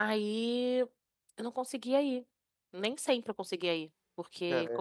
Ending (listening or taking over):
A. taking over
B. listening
B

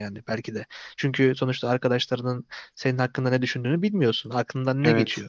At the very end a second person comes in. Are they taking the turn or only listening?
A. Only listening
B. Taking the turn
A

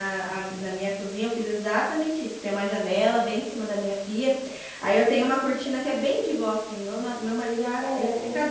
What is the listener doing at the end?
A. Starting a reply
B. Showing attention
B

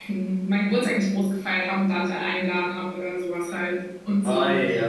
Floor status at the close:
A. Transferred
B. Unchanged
A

